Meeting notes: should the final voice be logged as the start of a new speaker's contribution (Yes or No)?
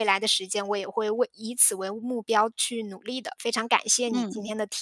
Yes